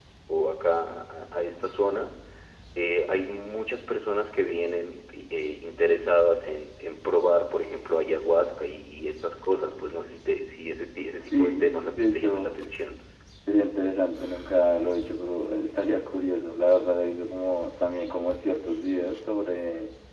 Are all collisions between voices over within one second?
No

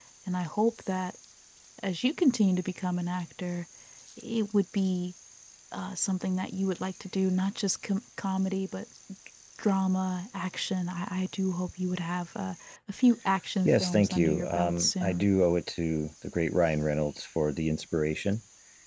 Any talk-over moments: Yes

